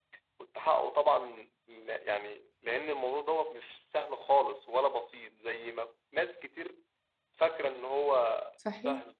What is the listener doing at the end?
taking over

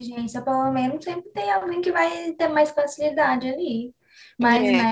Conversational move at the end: listening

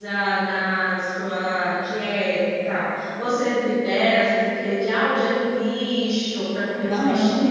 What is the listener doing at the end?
taking over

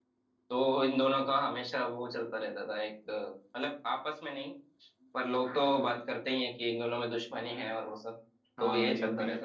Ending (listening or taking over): taking over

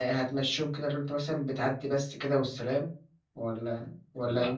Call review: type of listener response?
taking over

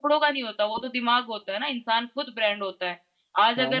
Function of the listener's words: listening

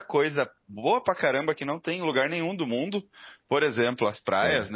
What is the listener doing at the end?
listening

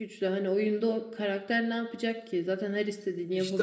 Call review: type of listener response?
taking over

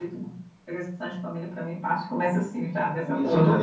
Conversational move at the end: taking over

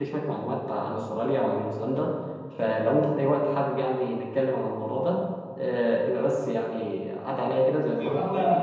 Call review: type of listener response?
taking over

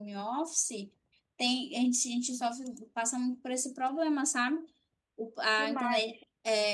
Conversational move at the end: listening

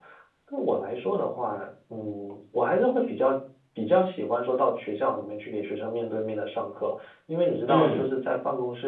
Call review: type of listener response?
listening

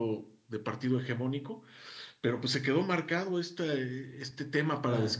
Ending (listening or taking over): listening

